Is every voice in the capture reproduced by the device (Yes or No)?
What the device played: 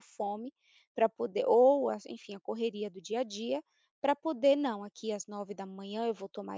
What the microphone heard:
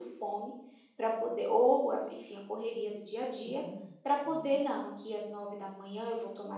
No